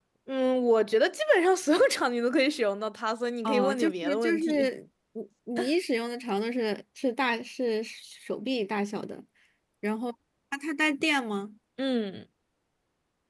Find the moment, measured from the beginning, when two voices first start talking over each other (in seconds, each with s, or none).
3.4 s